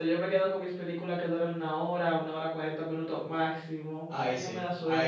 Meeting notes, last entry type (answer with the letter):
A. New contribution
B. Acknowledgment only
A